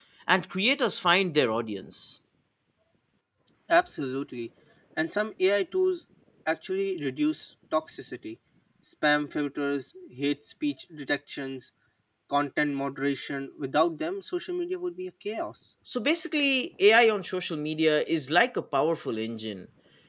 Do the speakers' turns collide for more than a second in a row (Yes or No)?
No